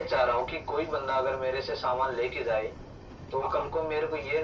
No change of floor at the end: Yes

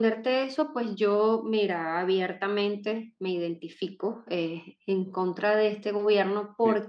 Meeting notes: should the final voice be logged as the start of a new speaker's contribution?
No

